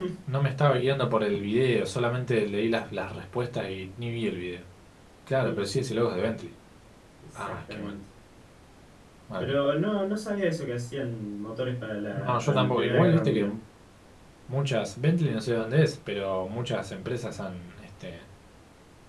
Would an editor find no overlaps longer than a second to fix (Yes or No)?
No